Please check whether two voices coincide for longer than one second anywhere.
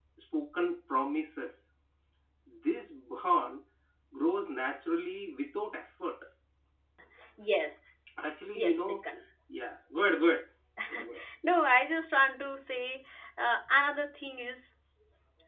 No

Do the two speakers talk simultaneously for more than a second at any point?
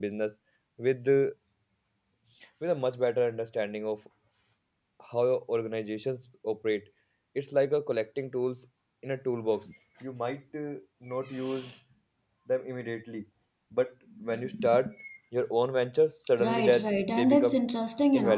Yes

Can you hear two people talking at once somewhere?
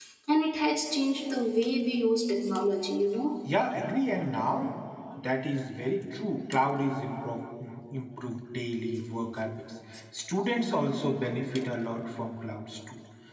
No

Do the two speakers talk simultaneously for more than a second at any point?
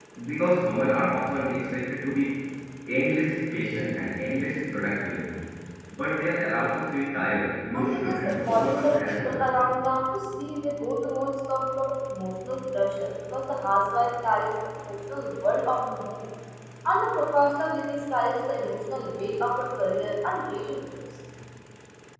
Yes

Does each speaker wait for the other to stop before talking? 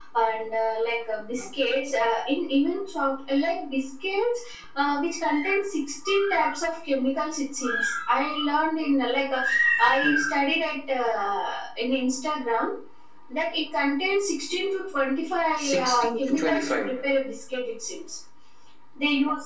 No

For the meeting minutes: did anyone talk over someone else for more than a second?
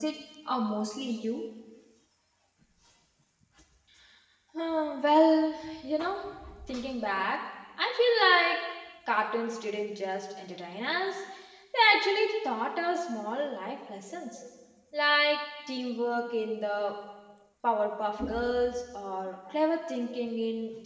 No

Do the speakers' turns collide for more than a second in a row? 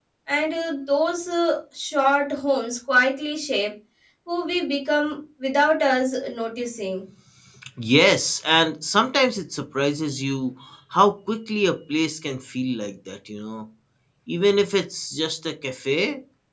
No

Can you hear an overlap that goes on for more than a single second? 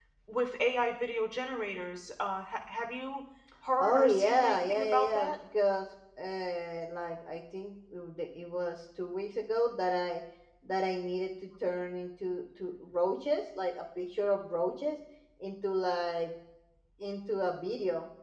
Yes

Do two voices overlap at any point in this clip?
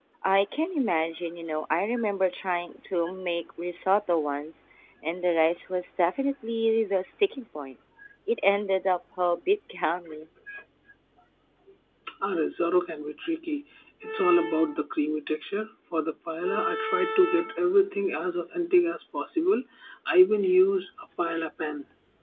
No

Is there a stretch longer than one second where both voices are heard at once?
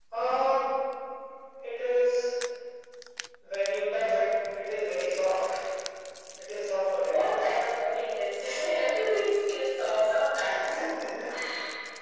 No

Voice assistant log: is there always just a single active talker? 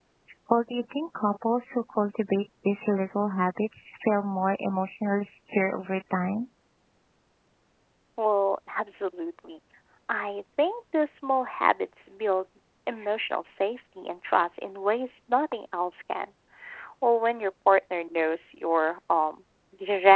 Yes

